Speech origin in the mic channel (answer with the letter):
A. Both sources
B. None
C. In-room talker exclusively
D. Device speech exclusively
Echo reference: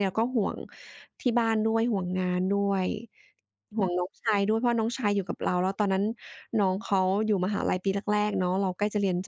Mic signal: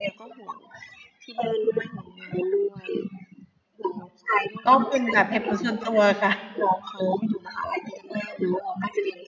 A